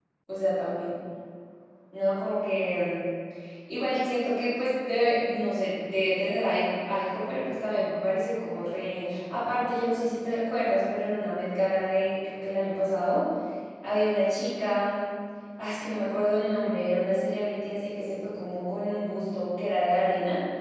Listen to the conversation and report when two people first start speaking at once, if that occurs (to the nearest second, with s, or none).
none